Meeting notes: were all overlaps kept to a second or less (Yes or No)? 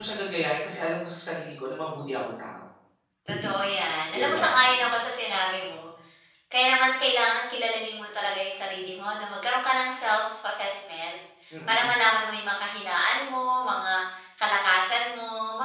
Yes